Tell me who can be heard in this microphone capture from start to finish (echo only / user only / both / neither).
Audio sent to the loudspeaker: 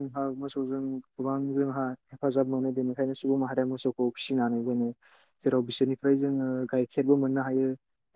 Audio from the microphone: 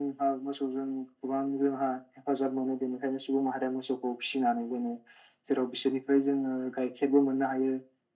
echo only